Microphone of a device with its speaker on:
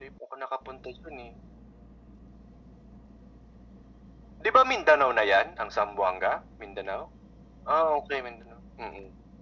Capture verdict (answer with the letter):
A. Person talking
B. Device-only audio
B